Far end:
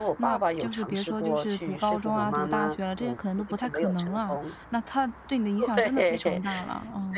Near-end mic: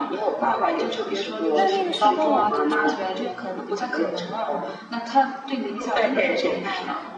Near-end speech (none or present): present